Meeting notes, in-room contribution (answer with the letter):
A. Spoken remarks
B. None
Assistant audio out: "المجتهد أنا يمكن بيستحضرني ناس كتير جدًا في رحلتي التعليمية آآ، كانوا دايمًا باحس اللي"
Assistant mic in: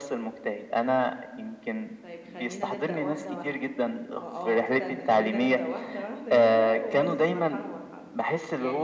A